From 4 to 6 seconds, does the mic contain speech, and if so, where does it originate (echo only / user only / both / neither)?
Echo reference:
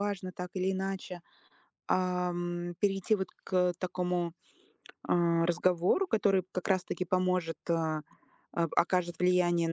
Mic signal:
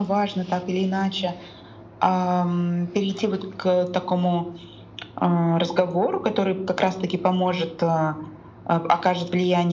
echo only